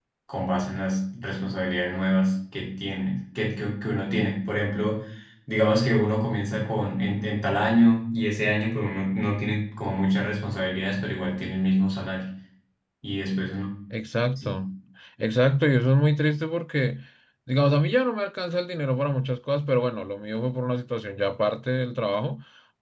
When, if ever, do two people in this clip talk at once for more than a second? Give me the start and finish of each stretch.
none

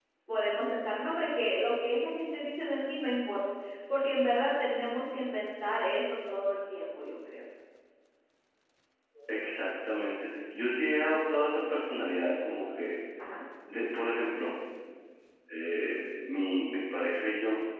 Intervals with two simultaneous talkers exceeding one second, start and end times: none

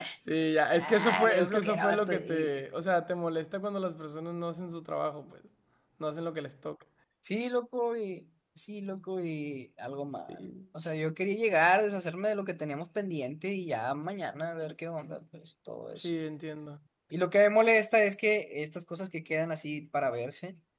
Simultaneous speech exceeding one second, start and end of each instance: 0.8-2.5

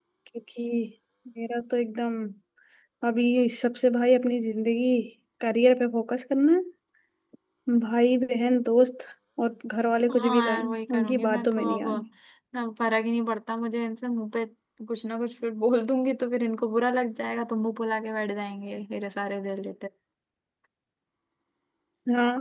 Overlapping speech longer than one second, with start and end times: 10.1-11.9

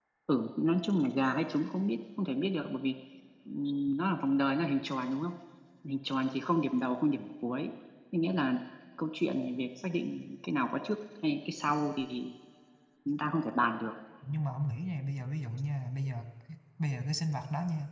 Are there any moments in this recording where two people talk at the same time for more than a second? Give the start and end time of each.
none

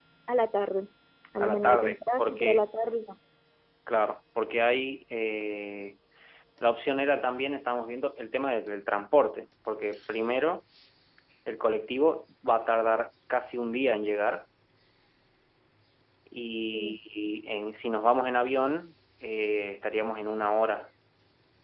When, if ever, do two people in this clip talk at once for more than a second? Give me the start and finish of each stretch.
1.4-2.6

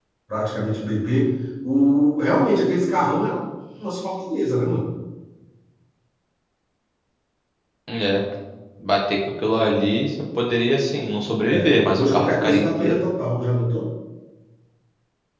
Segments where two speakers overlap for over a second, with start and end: 11.5-13.0

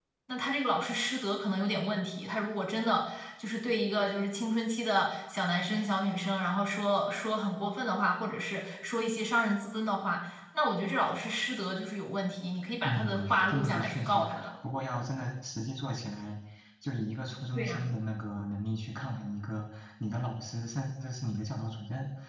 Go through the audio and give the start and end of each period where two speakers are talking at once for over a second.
12.8-14.5

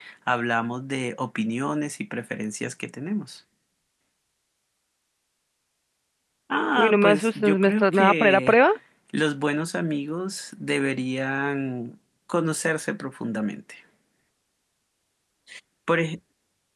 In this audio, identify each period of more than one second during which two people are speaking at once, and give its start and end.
6.8-8.6

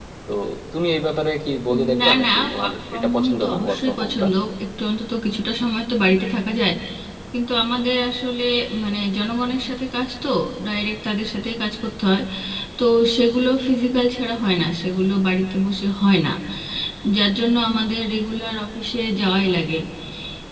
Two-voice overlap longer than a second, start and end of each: 1.7-4.2

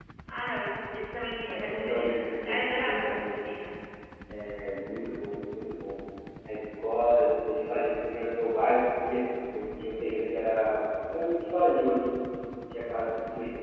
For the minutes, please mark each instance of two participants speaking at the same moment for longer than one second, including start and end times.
1.5-3.6

